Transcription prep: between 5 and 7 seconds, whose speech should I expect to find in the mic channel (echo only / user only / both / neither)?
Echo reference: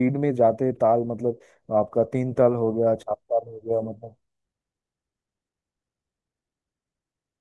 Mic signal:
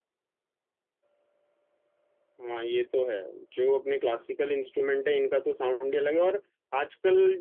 user only